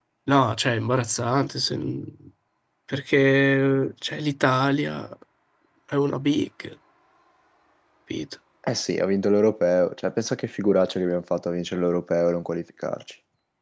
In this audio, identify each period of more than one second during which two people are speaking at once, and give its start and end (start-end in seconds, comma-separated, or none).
none